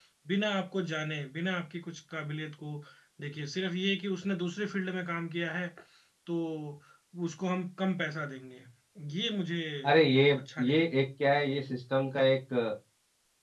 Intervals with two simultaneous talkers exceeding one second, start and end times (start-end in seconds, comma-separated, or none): none